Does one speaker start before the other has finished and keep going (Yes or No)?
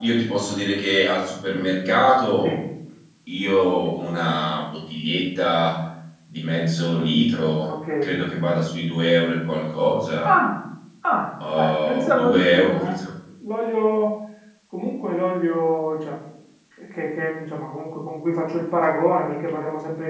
Yes